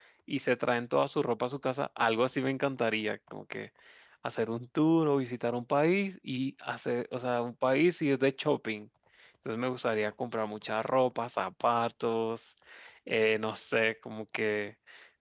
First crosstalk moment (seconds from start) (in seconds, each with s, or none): none